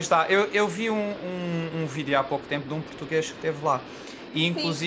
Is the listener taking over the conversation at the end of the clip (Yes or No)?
Yes